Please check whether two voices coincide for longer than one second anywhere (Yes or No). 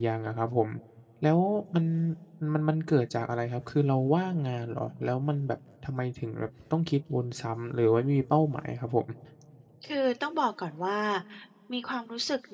No